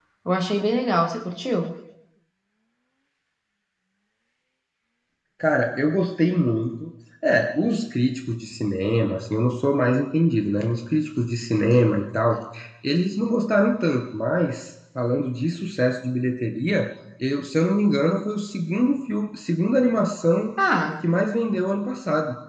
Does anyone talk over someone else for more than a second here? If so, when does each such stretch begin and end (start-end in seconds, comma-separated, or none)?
none